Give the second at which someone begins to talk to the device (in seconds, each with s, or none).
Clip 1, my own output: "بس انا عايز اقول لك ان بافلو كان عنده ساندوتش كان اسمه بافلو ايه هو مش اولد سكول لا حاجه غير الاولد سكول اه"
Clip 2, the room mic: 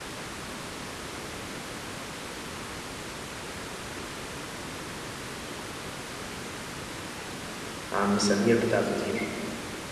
7.9 s